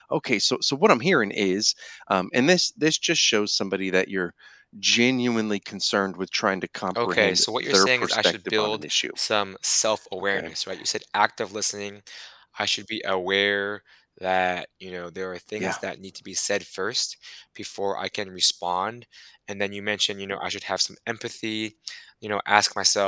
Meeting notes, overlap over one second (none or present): present